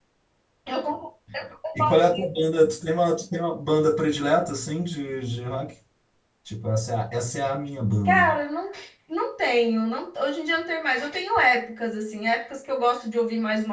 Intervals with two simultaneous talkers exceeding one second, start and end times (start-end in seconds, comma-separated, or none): none